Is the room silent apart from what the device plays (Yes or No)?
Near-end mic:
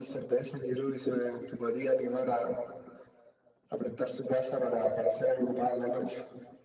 Yes